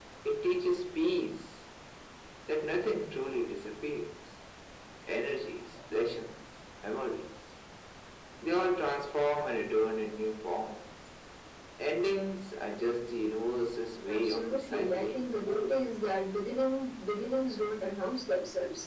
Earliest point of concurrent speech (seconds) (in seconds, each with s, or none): 14.1 s